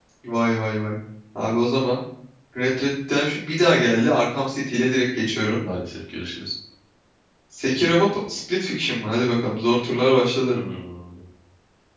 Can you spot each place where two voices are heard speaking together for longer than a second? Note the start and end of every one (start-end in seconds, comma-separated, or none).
none